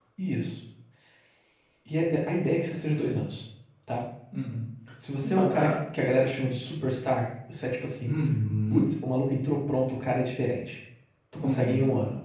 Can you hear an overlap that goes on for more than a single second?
No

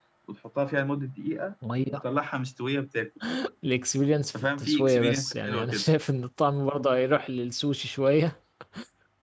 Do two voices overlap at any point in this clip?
Yes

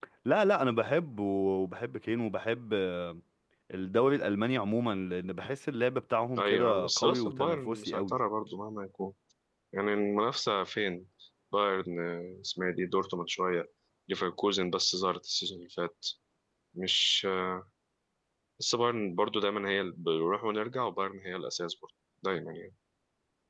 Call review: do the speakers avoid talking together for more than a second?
No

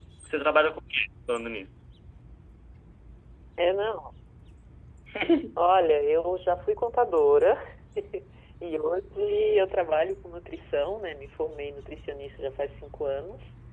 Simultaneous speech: No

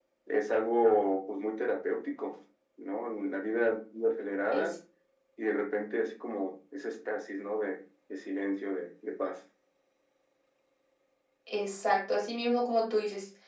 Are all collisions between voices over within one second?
Yes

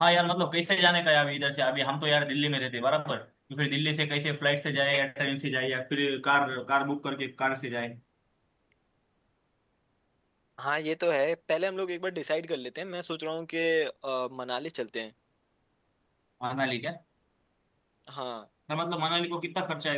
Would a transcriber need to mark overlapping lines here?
No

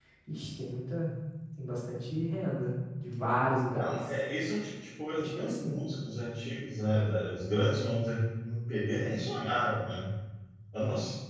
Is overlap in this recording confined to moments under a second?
Yes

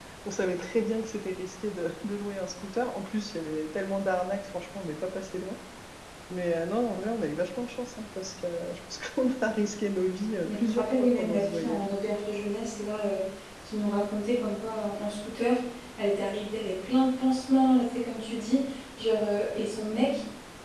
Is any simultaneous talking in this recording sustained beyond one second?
Yes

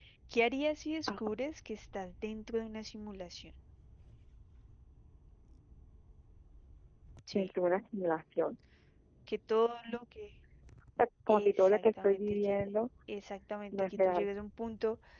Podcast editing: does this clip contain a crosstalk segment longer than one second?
Yes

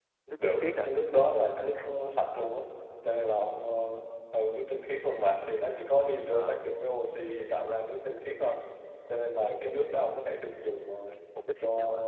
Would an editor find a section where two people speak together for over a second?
No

